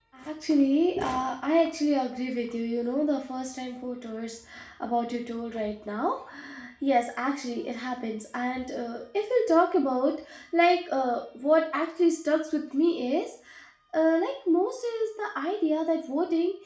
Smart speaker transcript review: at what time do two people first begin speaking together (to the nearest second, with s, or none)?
none